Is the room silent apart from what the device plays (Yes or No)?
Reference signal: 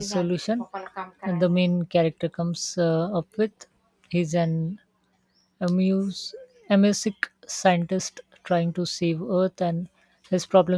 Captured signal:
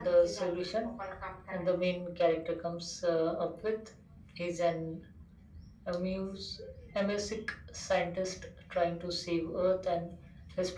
Yes